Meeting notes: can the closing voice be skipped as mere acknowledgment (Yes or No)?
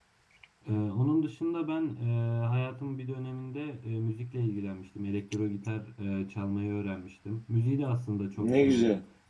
Yes